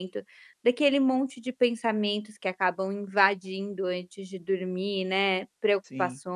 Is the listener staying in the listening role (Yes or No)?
Yes